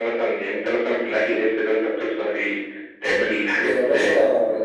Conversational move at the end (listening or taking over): taking over